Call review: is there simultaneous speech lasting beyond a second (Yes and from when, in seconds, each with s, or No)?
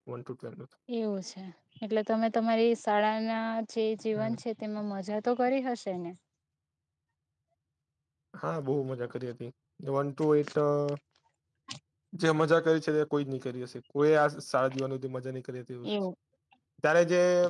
No